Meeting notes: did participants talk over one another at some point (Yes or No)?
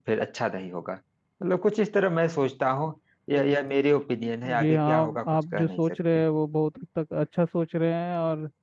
Yes